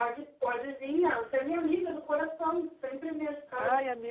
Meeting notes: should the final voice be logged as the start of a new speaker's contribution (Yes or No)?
Yes